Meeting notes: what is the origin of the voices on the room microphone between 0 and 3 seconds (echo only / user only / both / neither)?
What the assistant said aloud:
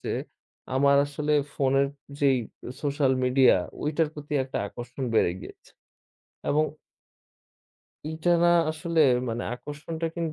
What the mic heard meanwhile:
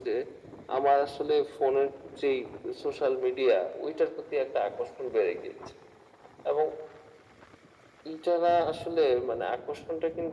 echo only